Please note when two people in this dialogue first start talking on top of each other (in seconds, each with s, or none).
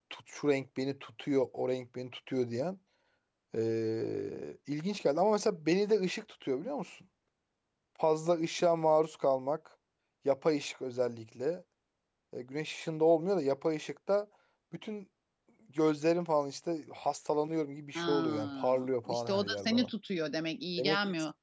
17.9 s